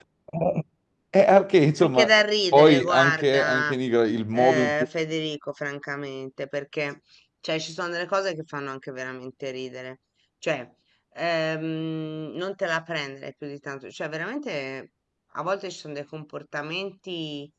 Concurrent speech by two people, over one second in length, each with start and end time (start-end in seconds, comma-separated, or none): 2.5-3.7